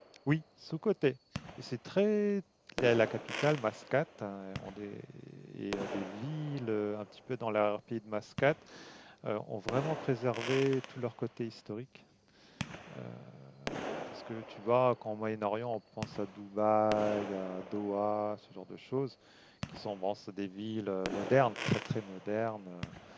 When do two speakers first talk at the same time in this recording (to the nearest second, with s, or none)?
none